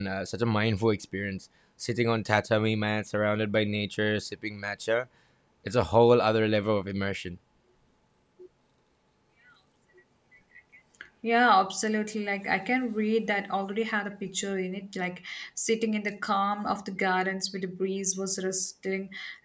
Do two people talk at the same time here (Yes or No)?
No